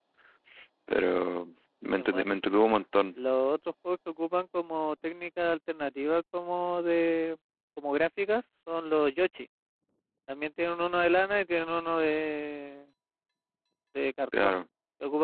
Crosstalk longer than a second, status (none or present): none